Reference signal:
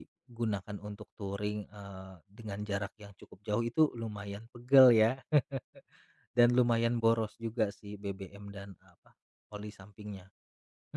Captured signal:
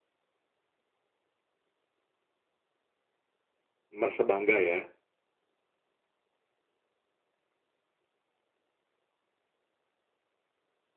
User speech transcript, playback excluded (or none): Merasa bangga ya?